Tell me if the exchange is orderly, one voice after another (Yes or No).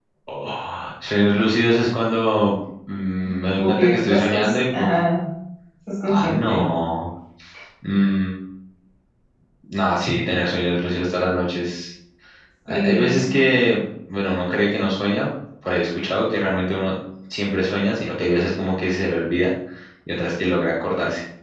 No